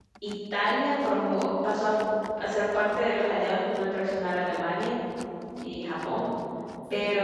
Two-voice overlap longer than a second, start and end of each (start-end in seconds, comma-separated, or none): none